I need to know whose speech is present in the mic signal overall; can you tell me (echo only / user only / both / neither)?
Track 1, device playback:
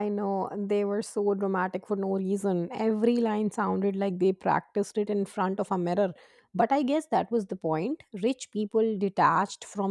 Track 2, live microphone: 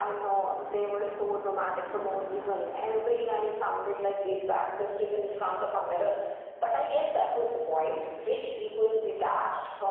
echo only